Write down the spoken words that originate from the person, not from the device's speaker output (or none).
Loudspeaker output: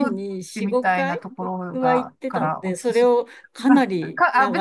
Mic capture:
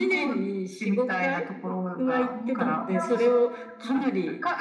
なるほ